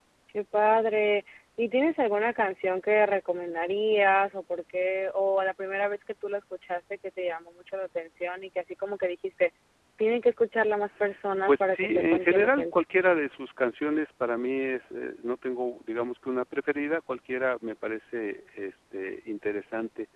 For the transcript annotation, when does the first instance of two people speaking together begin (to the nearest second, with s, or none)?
11 s